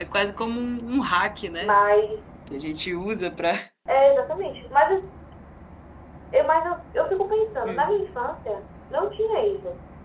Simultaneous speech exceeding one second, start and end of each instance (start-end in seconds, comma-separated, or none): none